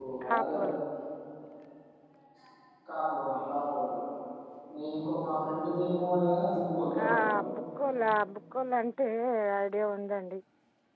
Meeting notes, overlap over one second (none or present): none